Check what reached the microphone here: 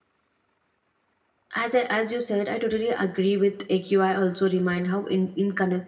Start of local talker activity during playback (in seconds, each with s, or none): 1.6 s